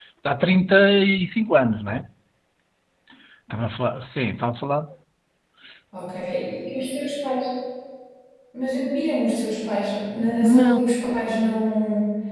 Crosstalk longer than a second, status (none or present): none